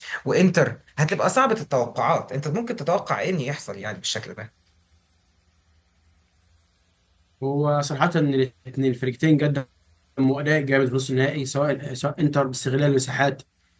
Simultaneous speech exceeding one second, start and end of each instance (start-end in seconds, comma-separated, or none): none